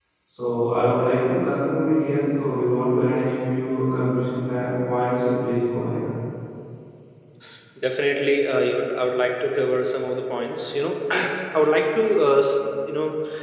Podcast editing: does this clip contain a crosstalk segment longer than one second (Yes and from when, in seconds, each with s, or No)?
No